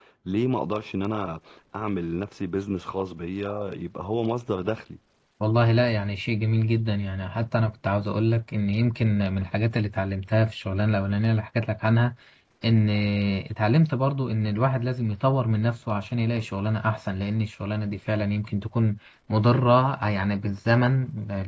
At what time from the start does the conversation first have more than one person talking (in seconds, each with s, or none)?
none